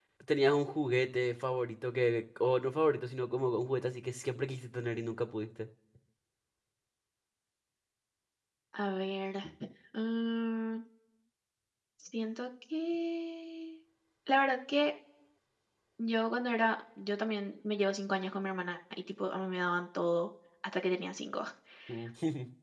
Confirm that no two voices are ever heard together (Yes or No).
Yes